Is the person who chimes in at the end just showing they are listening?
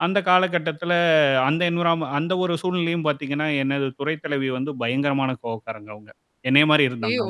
Yes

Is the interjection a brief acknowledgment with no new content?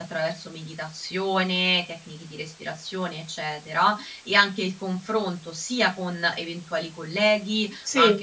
Yes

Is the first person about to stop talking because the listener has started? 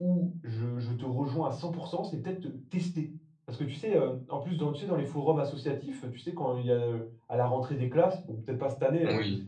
No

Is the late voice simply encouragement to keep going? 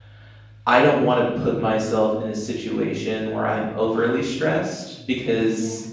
Yes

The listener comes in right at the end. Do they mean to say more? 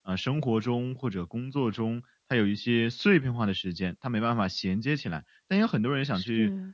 No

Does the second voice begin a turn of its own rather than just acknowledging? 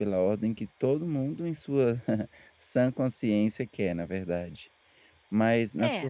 No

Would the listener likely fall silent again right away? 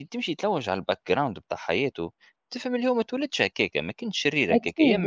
Yes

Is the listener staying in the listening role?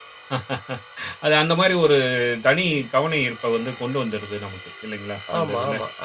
No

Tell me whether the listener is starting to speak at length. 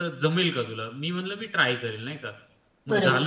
No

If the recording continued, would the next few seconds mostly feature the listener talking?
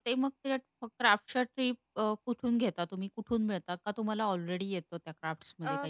Yes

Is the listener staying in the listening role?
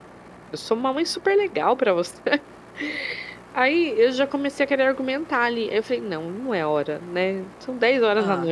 Yes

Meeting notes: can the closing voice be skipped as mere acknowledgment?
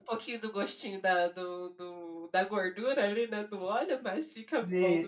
No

